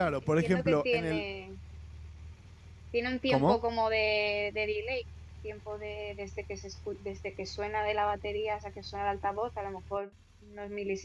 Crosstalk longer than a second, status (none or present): present